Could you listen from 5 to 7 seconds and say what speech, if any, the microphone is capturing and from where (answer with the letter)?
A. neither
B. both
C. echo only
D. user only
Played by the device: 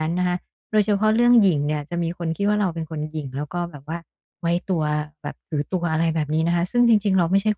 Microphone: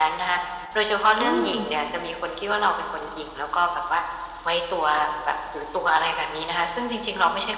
C